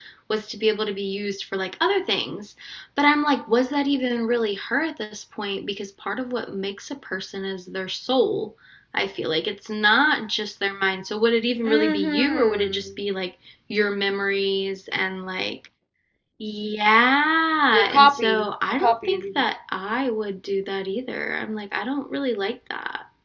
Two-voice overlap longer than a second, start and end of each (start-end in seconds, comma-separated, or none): 11.6-12.9, 17.7-19.4